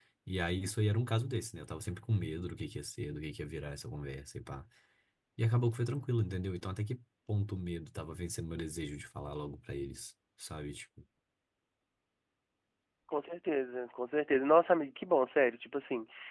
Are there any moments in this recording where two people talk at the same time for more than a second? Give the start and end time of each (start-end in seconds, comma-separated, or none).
none